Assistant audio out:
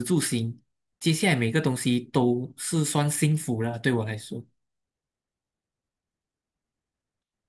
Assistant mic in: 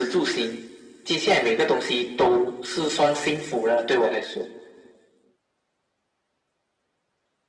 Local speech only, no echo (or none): none